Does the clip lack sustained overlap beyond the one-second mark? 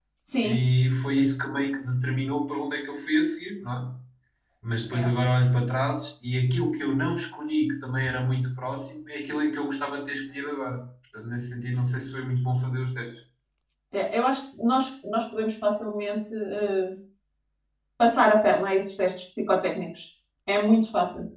Yes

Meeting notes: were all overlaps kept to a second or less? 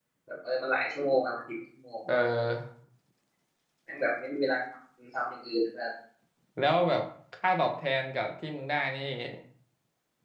Yes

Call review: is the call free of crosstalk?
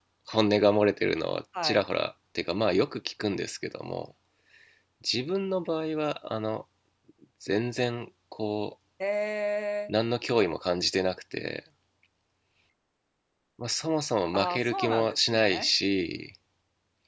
No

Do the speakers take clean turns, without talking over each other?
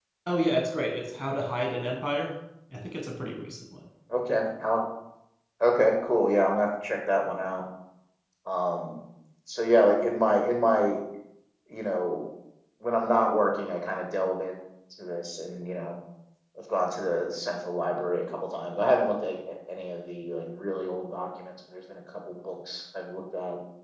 Yes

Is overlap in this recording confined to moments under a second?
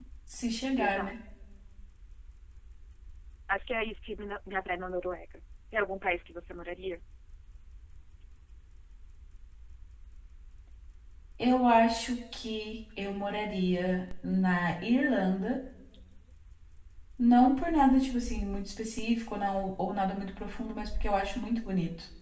Yes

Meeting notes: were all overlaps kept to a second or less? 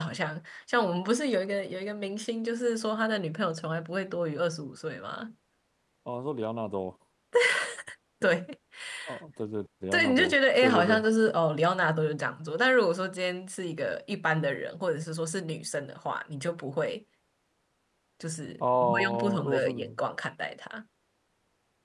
No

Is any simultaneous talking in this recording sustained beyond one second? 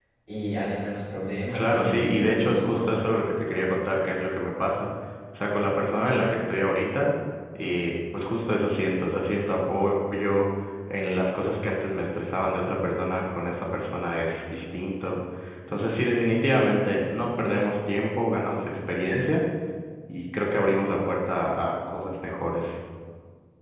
Yes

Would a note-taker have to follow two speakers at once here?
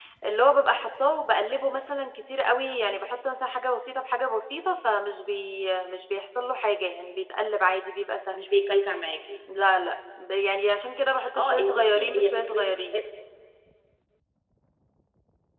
Yes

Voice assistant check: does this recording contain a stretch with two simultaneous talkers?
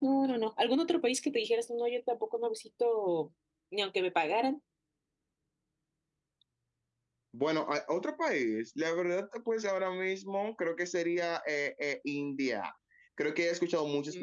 No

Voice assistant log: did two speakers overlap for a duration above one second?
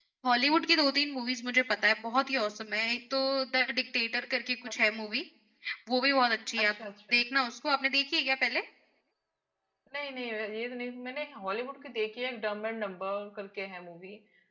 No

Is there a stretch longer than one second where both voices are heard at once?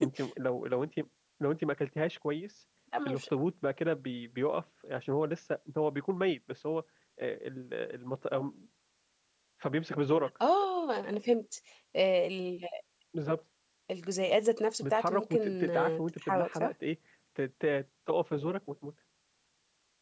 Yes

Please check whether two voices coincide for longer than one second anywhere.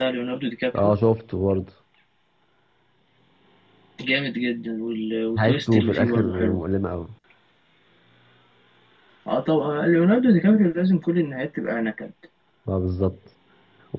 Yes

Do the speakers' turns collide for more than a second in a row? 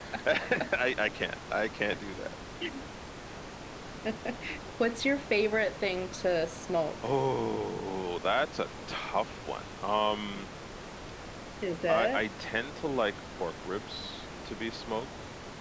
No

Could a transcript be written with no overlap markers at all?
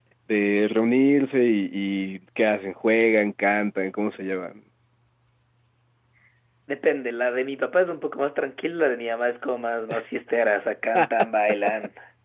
Yes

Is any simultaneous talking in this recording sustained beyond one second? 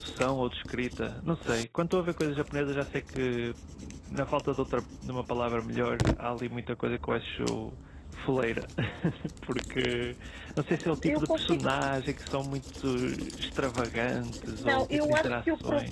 Yes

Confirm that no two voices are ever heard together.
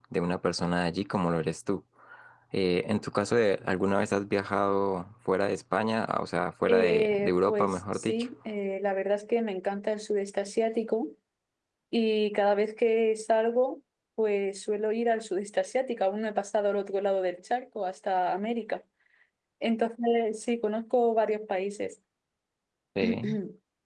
No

